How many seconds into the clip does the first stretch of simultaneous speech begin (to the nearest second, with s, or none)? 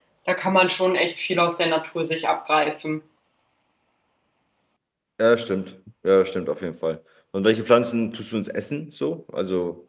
none